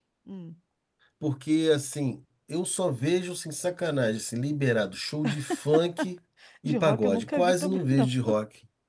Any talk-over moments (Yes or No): Yes